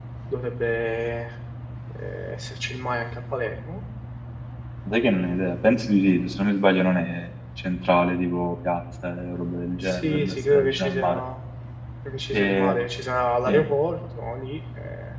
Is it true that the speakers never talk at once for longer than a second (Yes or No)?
No